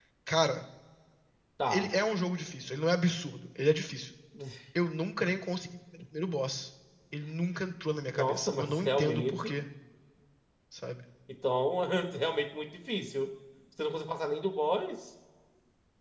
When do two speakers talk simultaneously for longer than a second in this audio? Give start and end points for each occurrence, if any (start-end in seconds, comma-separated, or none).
8.1-9.6